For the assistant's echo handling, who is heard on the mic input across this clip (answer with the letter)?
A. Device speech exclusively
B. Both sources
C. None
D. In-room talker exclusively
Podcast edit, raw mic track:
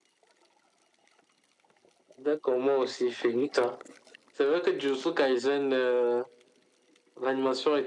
A